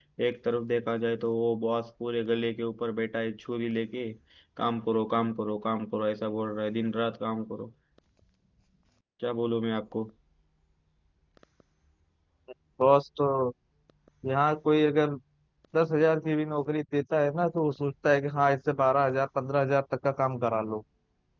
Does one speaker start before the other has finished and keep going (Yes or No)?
No